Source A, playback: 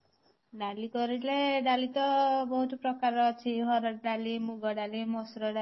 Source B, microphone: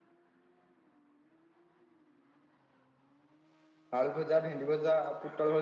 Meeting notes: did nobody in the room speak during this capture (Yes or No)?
No